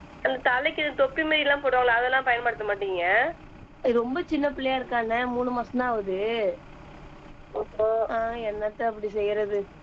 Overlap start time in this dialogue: none

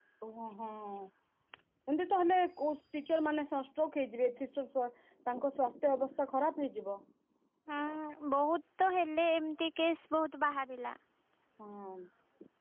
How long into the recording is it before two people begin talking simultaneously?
none

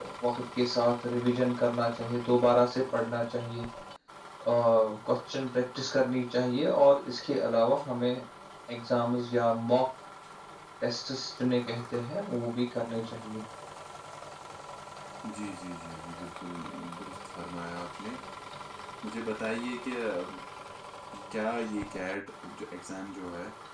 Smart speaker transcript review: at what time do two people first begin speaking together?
none

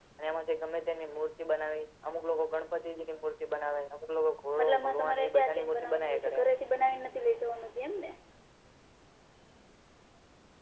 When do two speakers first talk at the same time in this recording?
5 s

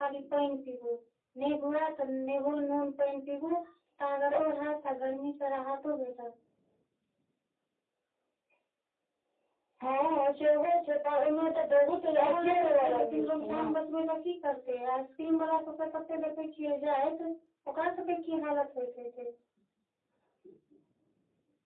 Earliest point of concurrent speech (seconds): 12 s

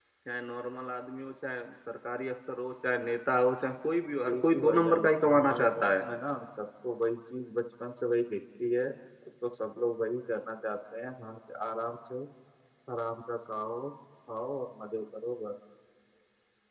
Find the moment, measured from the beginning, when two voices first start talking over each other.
4 s

